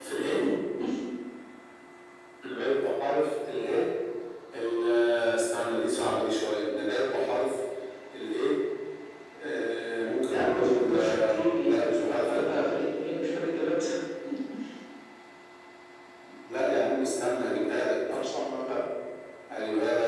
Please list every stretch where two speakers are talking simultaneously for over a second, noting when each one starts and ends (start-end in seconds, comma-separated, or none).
10.3-12.6